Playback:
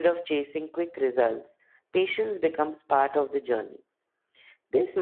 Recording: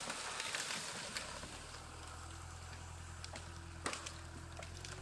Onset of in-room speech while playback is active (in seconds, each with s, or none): none